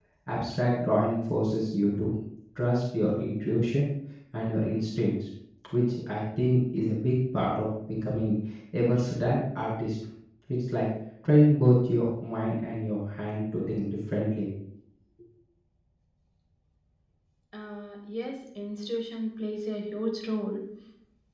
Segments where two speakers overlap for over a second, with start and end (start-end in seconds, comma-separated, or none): none